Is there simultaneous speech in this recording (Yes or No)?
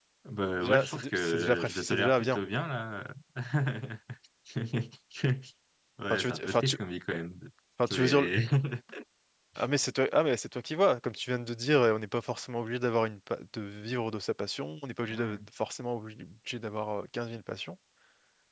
Yes